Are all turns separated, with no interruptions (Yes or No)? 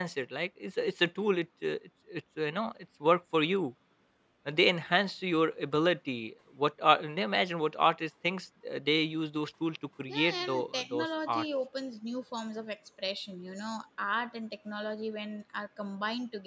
No